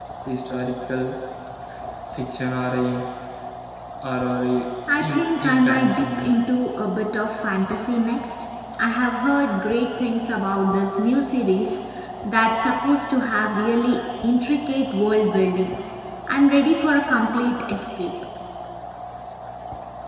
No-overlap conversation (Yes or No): No